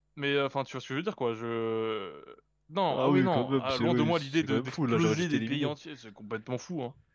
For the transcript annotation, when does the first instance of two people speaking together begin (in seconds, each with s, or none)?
2.9 s